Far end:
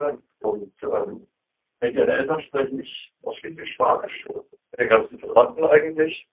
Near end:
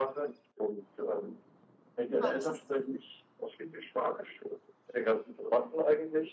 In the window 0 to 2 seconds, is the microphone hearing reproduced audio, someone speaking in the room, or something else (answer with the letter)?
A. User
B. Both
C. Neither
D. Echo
D